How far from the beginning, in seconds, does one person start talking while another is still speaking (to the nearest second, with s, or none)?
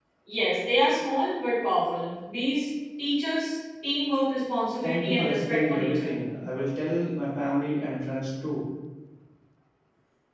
5 s